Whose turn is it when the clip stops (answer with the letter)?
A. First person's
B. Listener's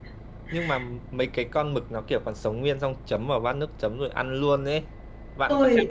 B